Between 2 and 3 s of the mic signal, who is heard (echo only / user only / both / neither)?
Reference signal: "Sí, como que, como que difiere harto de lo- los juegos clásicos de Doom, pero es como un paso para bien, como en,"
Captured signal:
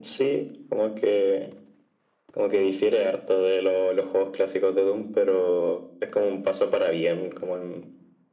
echo only